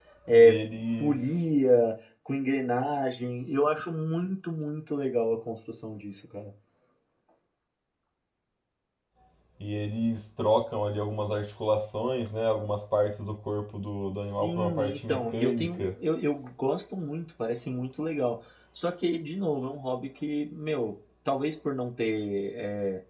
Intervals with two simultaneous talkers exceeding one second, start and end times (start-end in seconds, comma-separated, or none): 14.4-15.9